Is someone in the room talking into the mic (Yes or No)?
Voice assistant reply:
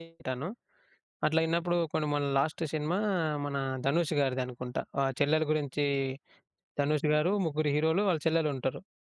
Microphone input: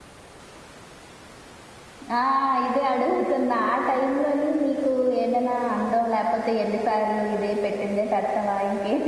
Yes